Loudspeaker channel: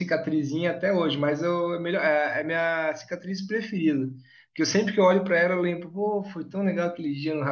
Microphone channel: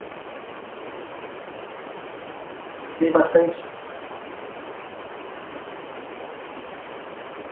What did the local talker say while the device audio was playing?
tem bastante,

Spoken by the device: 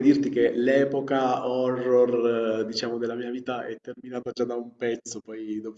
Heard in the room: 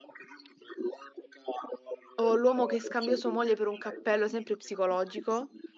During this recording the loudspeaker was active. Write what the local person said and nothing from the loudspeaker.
o l'uomo che scambiò sua moglie per un cappello, sempre psicologico.

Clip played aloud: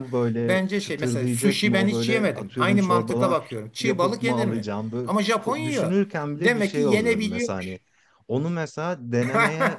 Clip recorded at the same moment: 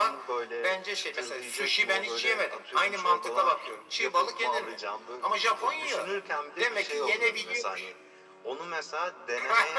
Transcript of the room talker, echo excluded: none

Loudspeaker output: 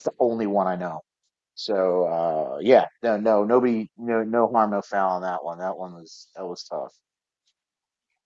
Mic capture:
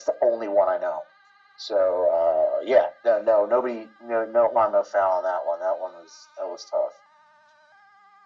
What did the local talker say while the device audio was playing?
none

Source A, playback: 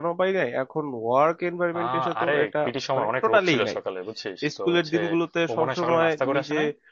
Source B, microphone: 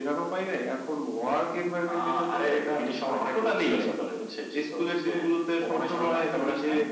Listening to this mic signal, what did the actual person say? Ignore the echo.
none

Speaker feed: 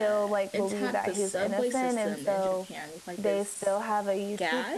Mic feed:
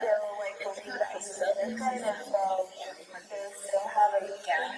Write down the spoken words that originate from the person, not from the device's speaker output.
hmm

